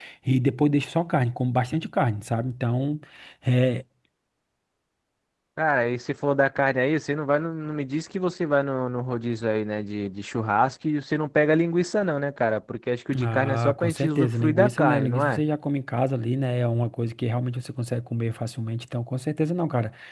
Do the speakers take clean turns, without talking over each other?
No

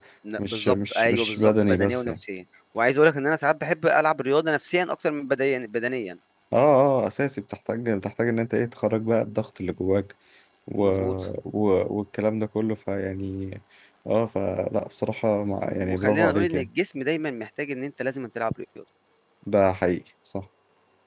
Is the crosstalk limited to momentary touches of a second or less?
No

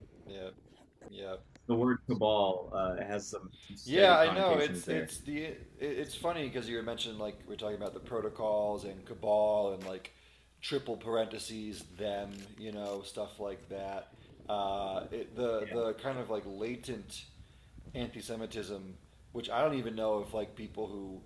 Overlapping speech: Yes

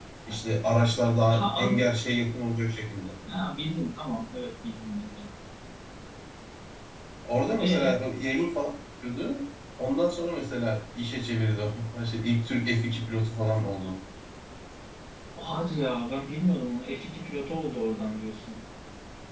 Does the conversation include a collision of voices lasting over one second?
No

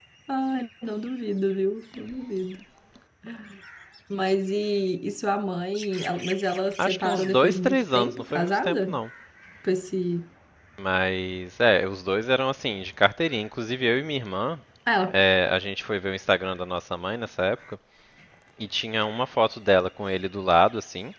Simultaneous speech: Yes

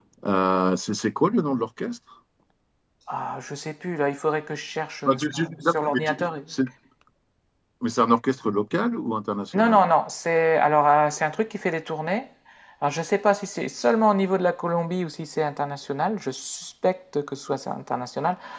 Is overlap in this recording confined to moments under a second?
No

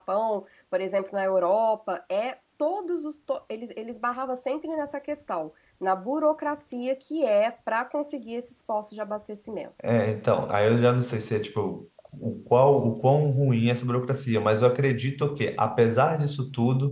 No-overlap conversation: Yes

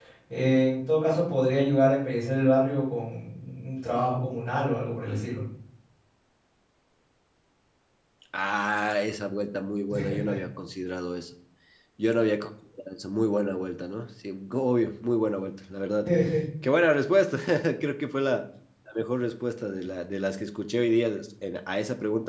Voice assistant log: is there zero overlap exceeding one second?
Yes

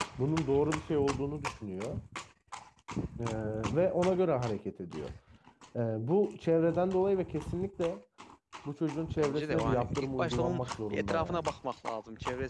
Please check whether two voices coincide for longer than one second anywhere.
Yes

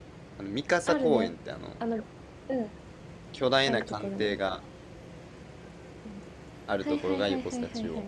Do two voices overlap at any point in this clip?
Yes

